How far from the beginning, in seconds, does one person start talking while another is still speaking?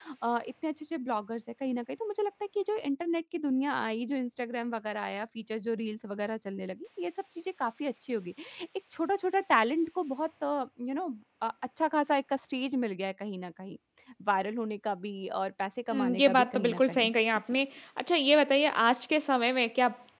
15.9 s

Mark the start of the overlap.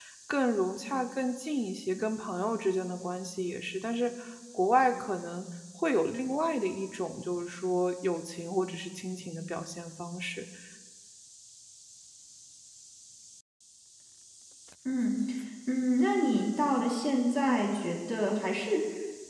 none

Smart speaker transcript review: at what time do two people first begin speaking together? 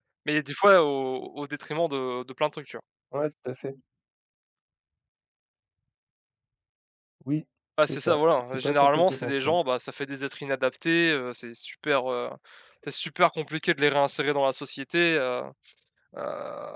7.9 s

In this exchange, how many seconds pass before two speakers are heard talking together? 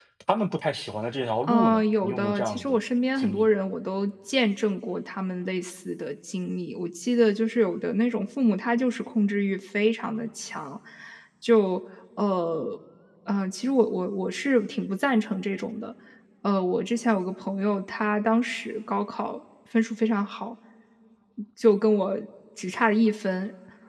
1.4 s

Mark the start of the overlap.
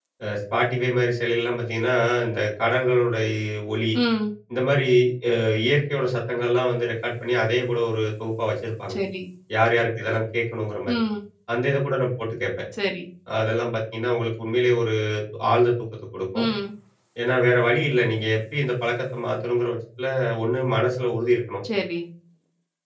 none

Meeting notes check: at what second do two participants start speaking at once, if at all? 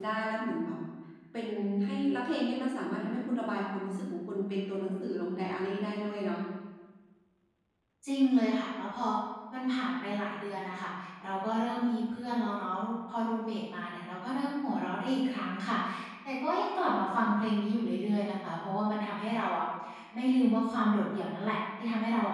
none

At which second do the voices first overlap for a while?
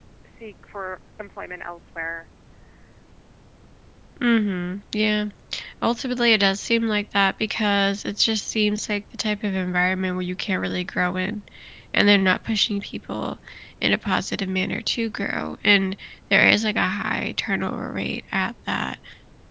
none

